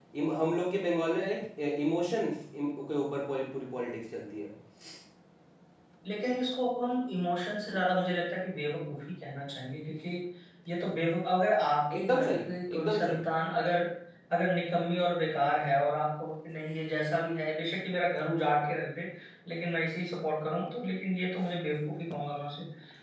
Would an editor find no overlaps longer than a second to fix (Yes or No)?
No